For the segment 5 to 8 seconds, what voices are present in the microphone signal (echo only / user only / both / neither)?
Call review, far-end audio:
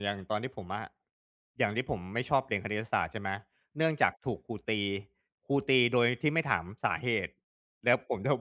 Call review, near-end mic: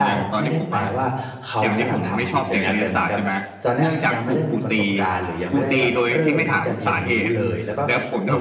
both